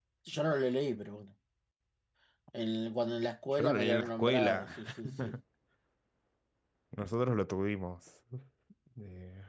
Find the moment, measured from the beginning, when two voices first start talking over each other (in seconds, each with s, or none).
3.5 s